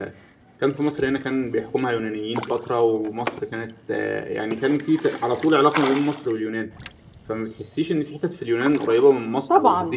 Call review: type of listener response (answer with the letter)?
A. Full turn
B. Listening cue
A